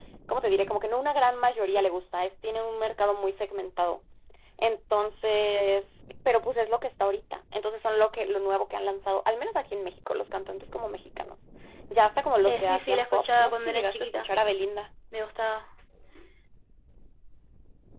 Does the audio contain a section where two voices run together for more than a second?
Yes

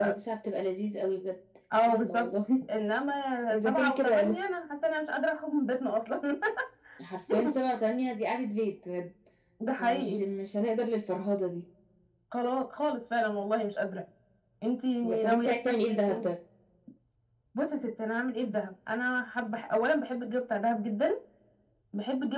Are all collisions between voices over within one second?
No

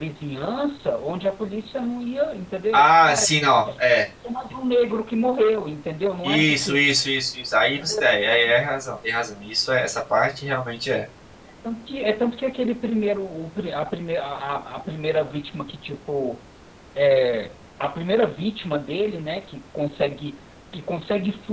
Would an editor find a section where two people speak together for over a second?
No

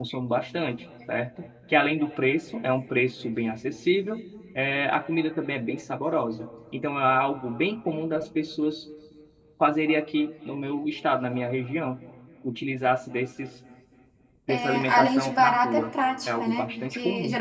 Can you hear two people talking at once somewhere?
Yes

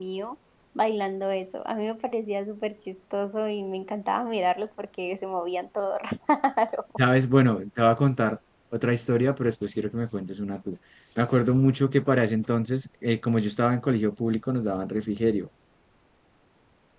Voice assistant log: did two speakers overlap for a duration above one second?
No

